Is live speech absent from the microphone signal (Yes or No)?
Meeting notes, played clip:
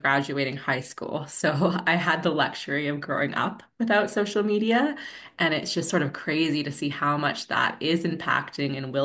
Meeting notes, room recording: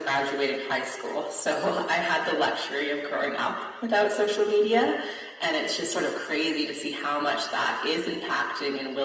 Yes